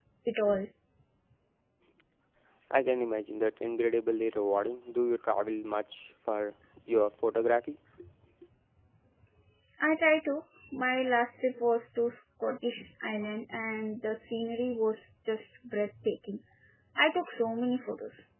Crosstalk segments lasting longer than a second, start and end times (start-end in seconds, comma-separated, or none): none